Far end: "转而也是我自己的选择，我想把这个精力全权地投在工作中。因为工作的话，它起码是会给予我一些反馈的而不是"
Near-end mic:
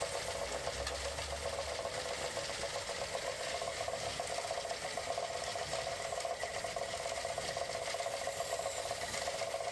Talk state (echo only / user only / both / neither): neither